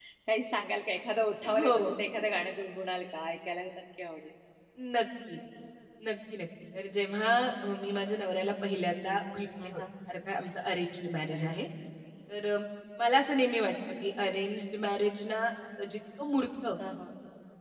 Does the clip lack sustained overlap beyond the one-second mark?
Yes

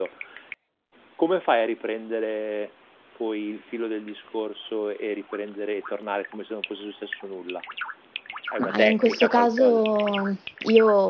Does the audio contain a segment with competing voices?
Yes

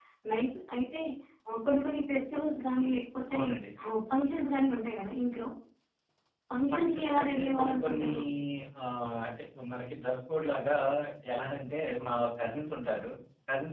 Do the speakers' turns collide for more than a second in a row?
Yes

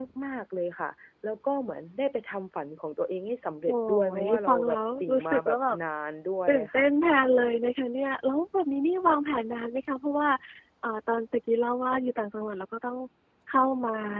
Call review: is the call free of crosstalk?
No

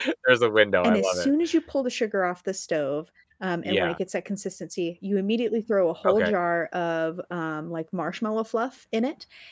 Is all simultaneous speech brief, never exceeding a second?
Yes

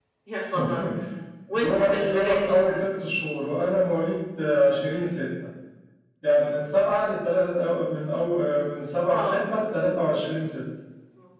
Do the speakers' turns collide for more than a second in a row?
Yes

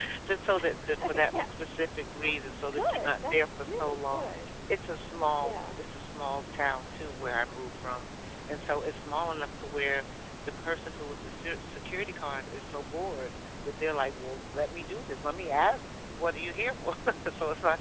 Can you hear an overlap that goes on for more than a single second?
Yes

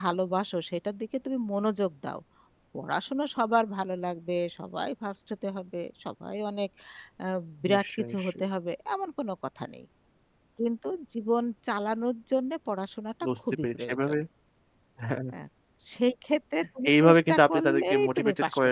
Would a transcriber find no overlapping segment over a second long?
No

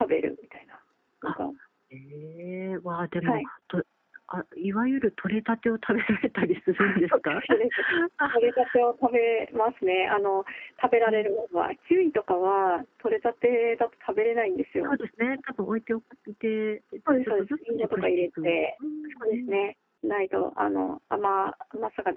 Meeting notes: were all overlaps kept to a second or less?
No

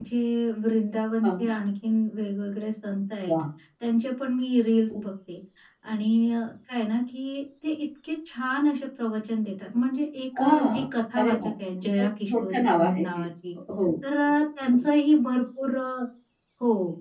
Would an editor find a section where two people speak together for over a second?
Yes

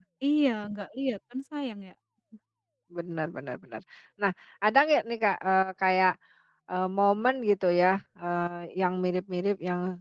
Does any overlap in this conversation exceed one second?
No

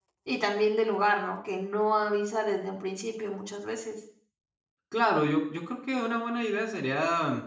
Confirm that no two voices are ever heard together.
Yes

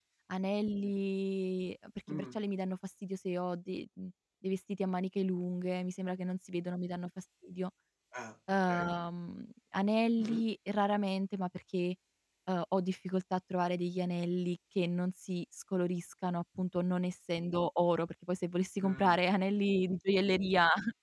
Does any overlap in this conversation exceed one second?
No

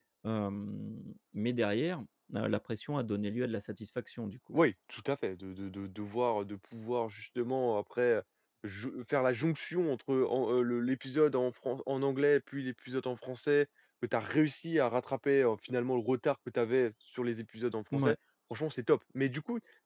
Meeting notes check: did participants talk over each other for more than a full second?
No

